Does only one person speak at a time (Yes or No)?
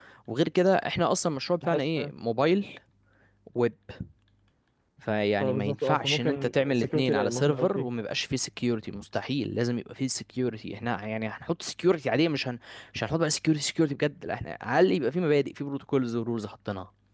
No